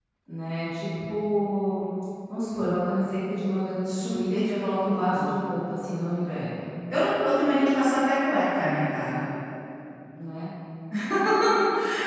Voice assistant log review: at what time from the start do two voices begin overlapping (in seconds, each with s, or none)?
3.9 s